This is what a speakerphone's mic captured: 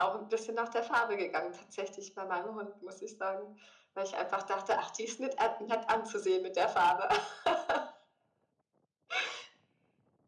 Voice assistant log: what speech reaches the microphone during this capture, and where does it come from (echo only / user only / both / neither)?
echo only